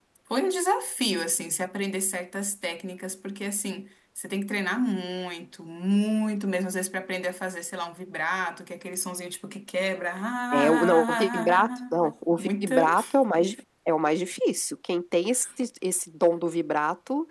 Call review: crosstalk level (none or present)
present